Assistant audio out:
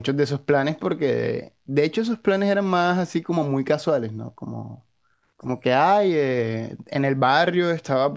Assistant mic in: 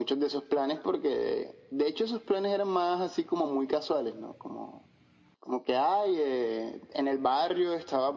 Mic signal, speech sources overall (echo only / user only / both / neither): echo only